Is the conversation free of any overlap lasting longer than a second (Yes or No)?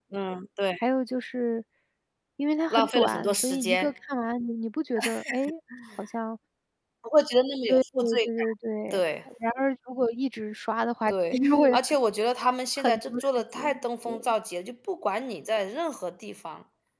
No